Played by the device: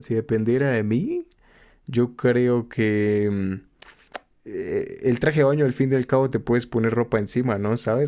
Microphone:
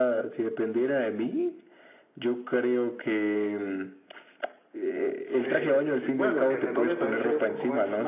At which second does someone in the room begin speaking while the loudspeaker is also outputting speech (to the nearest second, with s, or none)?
5 s